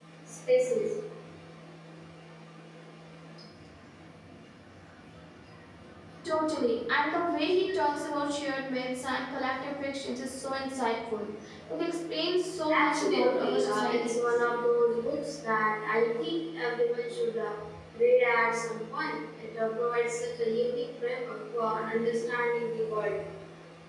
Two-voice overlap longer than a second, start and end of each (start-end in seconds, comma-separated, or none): 12.8-14.5